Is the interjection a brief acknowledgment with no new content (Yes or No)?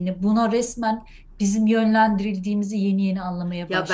No